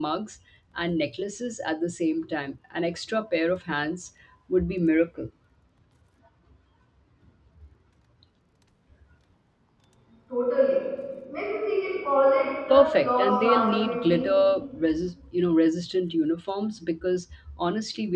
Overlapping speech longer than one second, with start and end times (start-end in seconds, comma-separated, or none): 12.7-14.4